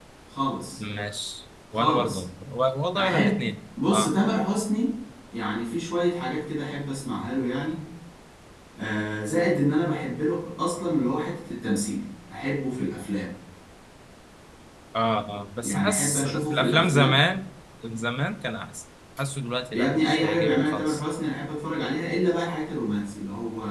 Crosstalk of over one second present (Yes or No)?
Yes